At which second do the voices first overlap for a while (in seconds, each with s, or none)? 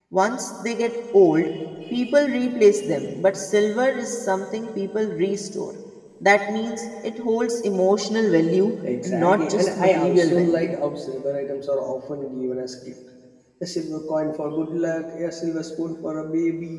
8.8 s